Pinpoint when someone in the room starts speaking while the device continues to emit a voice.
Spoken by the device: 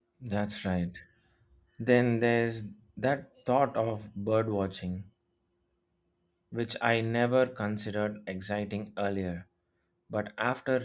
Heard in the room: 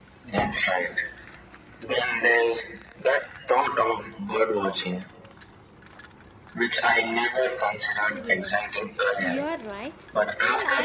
8.1 s

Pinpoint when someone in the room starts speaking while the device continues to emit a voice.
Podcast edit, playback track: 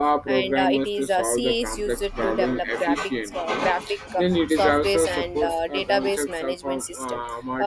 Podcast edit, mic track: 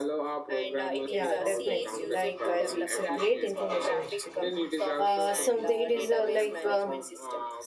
1.0 s

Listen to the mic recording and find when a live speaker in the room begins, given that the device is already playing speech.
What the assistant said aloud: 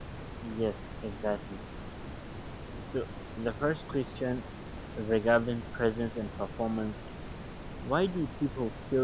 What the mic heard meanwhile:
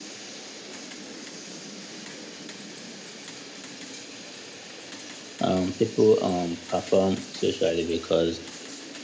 5.5 s

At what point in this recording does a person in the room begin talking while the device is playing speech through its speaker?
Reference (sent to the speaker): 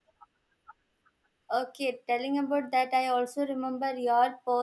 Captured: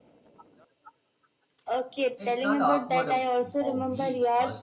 2.2 s

